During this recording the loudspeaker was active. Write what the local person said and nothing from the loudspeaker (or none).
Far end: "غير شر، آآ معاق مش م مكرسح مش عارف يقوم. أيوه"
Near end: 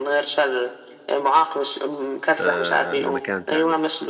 آآ لمكان تاني،